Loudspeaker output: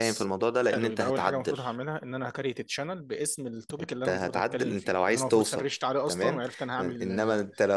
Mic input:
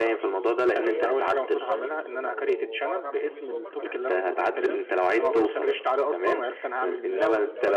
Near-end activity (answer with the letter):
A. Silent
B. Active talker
B